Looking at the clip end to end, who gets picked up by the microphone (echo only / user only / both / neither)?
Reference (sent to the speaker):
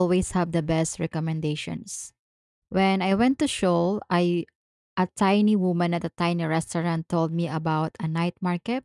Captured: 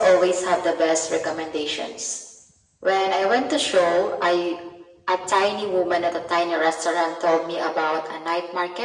echo only